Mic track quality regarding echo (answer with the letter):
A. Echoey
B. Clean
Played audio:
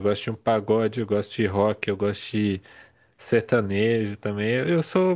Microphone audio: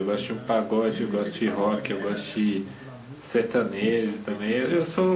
A